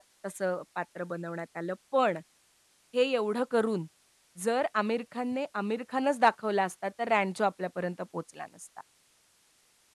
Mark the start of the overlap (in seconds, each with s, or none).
none